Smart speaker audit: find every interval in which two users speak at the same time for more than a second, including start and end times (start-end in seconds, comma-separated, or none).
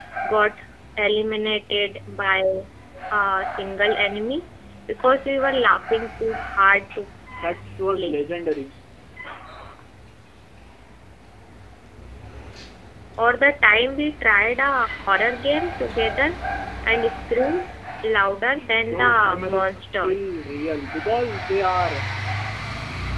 18.9-20.3